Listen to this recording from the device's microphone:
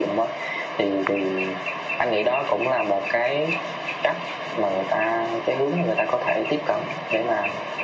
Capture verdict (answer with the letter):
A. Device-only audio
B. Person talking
A